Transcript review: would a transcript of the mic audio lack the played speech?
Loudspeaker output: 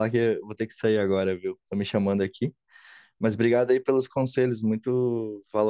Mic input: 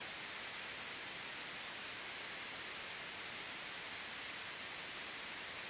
Yes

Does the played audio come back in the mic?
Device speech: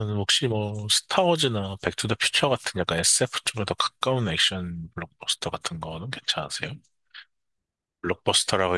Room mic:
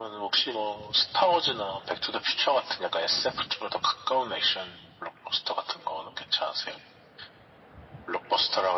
Yes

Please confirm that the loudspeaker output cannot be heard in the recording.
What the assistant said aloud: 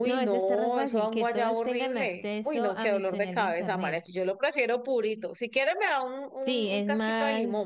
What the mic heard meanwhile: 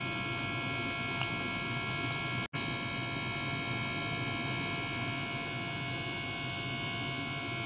Yes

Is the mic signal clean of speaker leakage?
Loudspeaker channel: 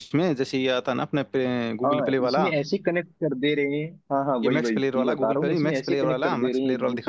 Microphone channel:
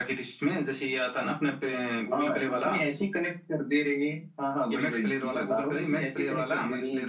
No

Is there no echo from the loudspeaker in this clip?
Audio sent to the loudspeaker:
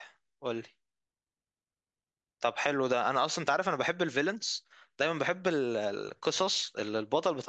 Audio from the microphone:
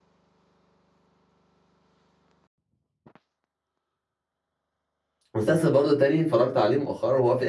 Yes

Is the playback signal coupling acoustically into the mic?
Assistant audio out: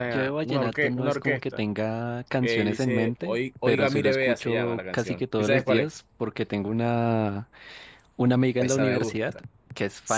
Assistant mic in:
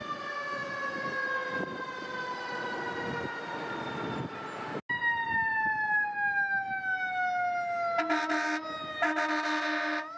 No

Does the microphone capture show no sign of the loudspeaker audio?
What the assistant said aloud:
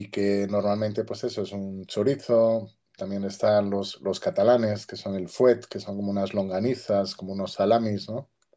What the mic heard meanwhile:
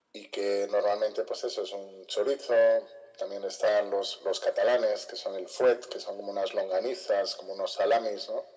No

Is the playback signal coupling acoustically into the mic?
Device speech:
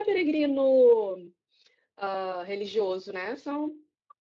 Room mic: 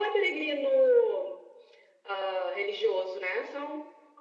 Yes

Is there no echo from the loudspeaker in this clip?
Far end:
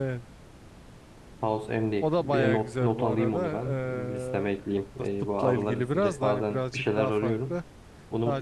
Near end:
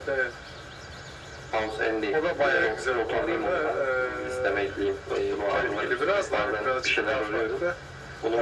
No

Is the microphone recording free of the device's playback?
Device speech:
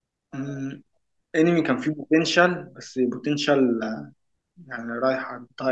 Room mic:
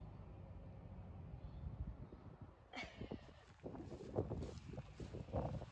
Yes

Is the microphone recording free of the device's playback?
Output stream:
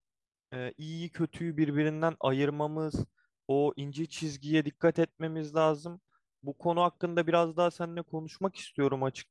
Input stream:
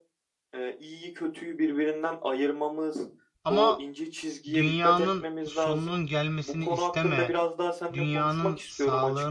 No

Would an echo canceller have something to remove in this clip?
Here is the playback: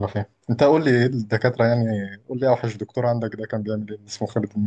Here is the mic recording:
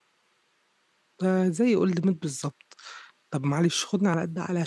No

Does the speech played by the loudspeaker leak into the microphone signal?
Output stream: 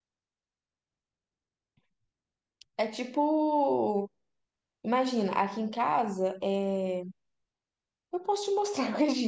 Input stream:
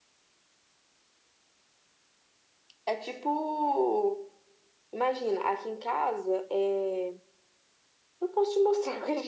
Yes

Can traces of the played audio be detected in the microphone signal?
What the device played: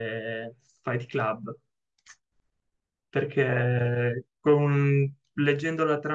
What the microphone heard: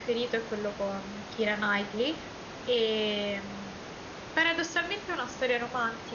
No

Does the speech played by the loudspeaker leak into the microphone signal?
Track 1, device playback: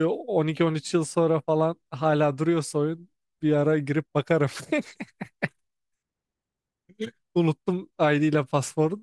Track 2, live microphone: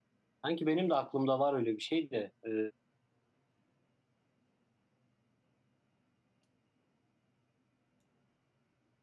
No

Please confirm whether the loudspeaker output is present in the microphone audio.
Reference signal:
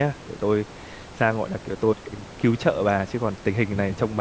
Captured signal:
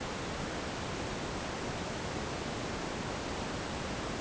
No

